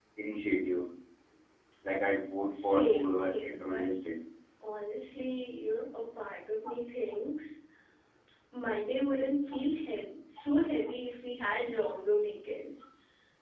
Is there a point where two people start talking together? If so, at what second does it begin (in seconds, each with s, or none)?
2.6 s